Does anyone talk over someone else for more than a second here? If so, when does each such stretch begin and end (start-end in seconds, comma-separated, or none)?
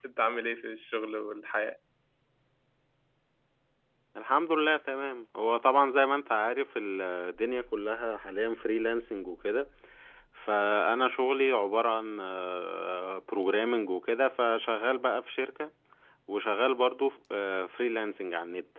none